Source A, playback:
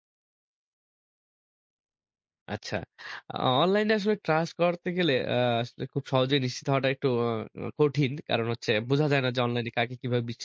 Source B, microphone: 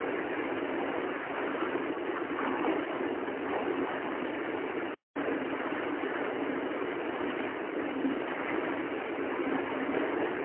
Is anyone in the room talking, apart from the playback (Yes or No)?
No